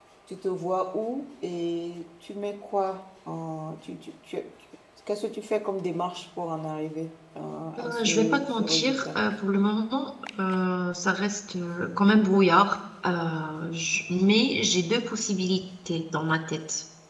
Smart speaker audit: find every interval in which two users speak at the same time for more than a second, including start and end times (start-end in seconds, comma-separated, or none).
7.8-9.2